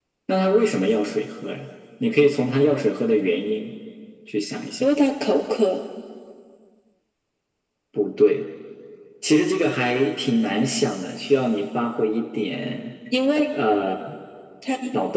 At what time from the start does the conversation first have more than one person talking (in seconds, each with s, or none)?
none